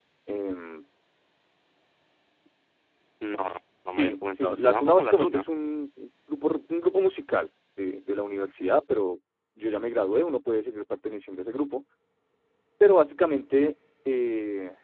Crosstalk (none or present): present